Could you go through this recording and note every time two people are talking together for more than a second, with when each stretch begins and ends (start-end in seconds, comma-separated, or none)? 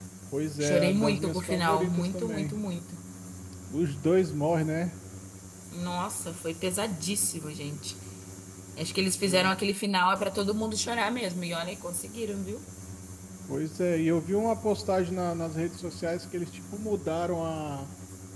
0.6-2.6